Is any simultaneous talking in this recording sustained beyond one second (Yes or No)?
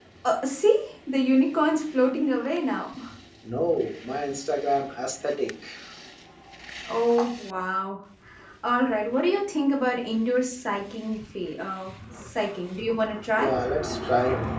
No